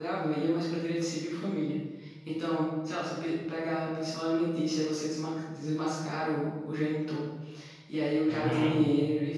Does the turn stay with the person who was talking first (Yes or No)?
Yes